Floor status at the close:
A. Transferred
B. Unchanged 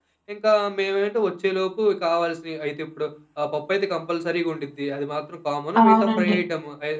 B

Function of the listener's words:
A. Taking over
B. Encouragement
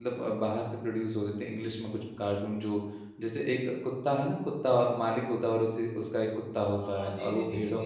A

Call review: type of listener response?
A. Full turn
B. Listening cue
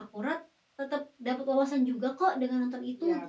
A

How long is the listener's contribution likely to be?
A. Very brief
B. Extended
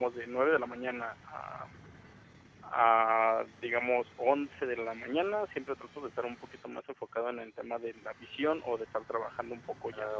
A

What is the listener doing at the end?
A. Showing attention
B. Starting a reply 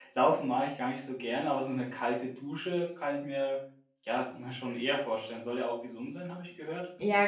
B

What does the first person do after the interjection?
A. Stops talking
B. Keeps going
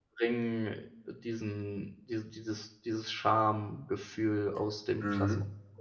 A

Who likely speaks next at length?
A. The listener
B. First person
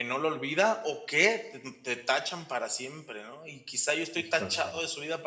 B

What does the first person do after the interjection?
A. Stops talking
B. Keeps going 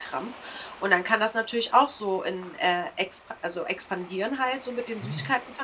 B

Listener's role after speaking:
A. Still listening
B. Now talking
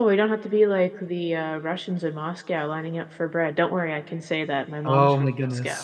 B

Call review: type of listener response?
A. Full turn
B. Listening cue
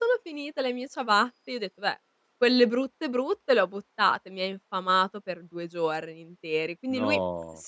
B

